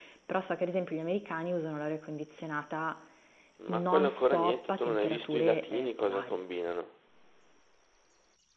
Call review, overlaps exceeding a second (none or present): present